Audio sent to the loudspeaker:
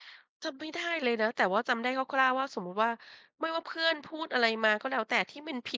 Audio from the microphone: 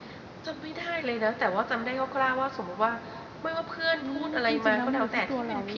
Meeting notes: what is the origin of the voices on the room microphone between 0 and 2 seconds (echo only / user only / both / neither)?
echo only